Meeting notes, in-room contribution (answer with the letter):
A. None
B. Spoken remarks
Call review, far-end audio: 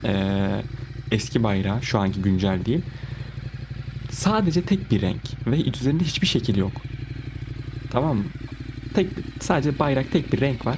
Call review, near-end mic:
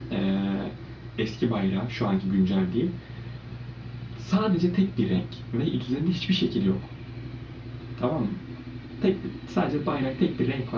A